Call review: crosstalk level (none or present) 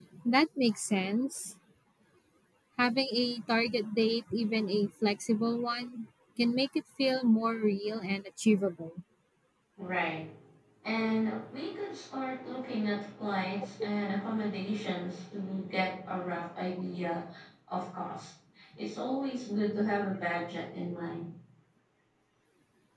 none